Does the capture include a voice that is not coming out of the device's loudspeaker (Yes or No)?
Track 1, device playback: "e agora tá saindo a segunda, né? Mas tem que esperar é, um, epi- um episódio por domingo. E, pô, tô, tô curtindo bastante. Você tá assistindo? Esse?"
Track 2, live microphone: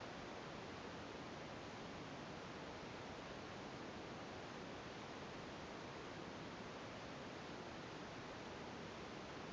No